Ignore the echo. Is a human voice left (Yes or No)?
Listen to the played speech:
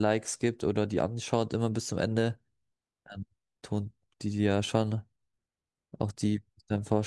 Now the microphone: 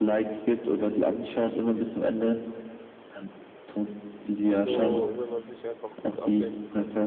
Yes